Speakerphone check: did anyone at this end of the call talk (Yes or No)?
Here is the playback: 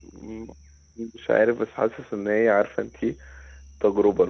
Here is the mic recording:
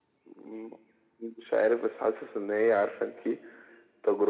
No